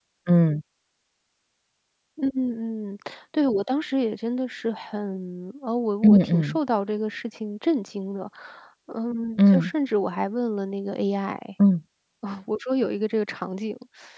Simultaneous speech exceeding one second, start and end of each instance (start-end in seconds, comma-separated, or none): none